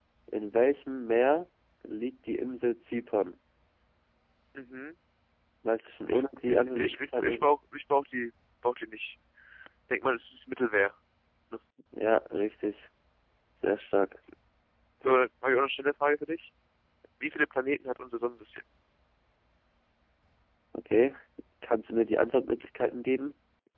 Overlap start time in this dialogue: 6.1 s

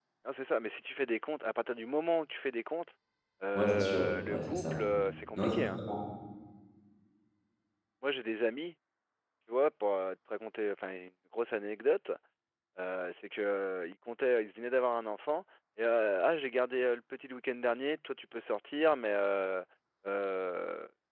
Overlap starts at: 3.5 s

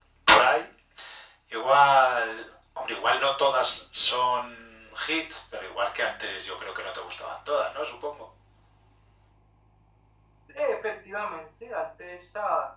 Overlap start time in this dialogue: none

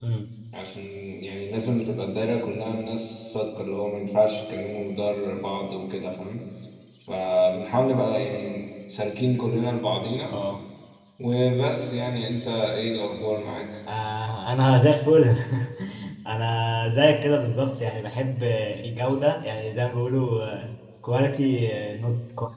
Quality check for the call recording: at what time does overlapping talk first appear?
none

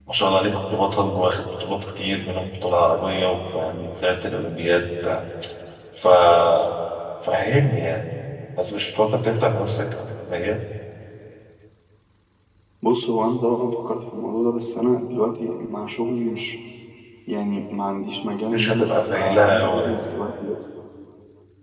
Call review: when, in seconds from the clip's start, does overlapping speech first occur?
18.5 s

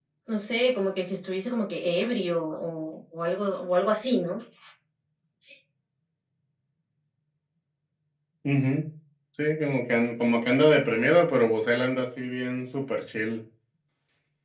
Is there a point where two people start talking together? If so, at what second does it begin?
none

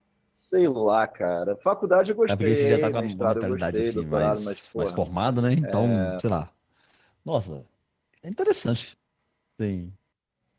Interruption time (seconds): 2.3 s

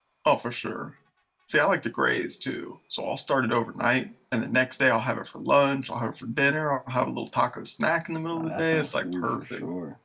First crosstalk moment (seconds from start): 8.3 s

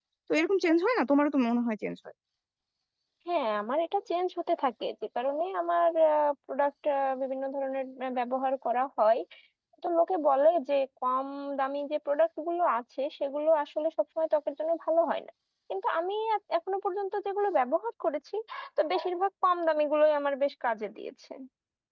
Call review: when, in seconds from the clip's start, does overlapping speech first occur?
none

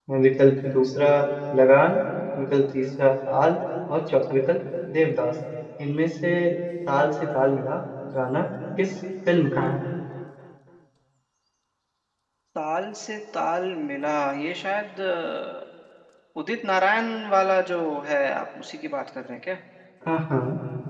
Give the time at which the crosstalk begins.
none

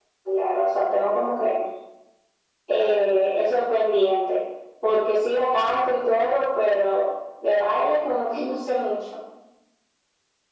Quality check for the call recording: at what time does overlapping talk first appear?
none

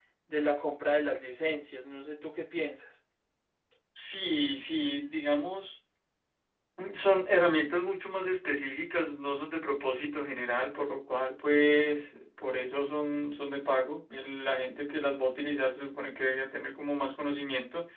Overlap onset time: none

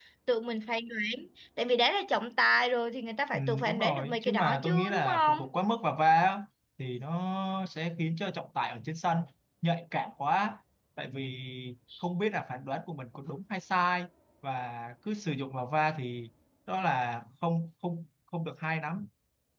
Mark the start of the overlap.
3.3 s

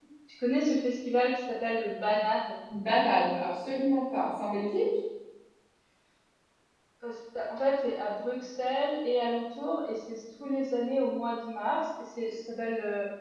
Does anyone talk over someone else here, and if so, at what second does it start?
none

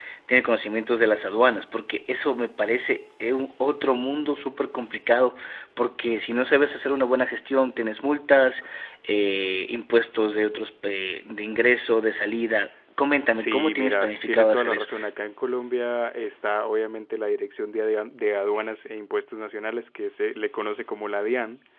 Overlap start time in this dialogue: 13.3 s

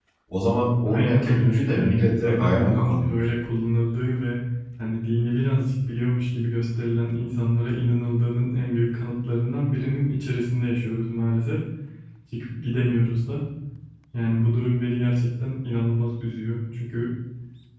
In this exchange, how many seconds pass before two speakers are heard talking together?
0.8 s

